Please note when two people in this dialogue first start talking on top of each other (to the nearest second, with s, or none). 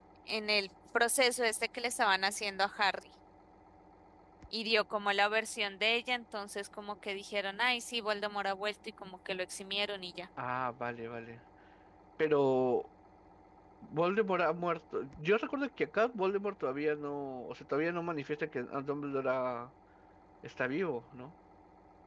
none